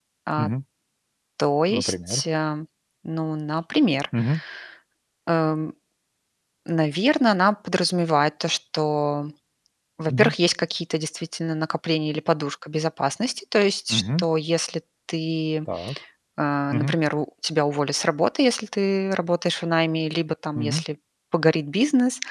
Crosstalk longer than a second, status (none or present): none